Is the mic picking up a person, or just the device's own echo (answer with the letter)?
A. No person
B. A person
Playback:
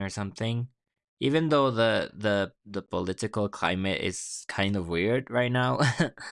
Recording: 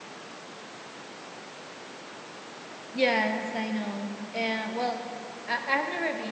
B